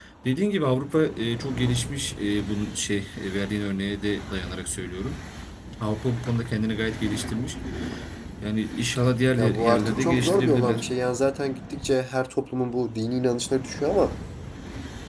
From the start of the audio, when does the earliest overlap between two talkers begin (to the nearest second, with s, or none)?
9 s